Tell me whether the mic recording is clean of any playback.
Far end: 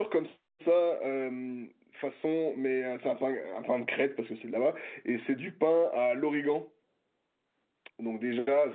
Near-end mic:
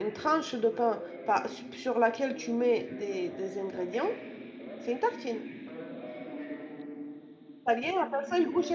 No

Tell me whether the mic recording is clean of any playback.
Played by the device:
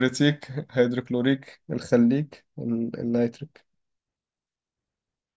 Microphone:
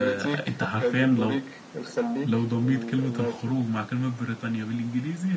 No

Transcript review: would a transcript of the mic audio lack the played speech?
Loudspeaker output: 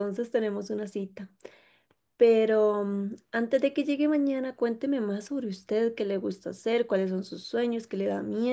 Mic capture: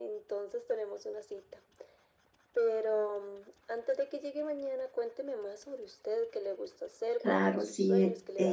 No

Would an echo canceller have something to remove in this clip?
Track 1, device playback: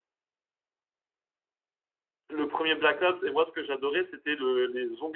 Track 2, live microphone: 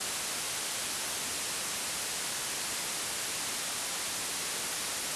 No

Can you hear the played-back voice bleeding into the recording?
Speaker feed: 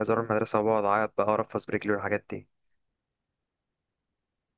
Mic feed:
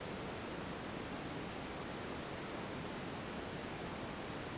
No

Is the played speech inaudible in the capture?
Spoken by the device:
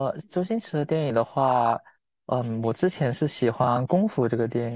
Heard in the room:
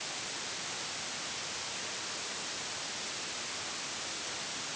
Yes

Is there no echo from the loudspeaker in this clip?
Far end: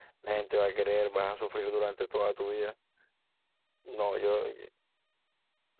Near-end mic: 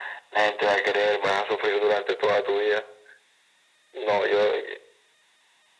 No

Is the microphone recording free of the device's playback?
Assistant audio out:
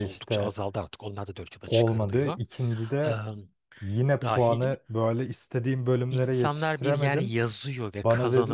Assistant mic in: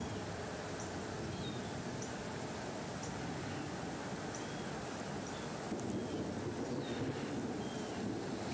Yes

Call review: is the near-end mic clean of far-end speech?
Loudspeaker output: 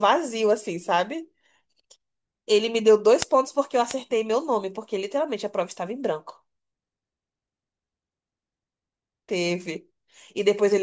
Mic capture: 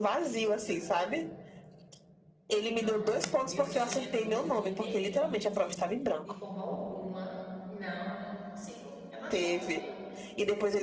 No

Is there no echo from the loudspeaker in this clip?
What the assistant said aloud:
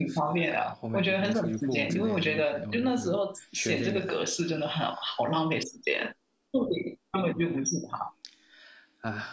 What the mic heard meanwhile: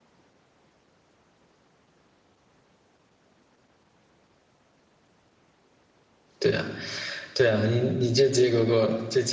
Yes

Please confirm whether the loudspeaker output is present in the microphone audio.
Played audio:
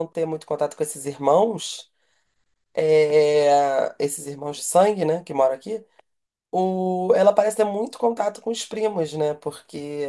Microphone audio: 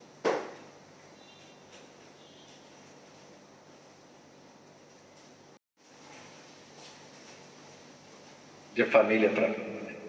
No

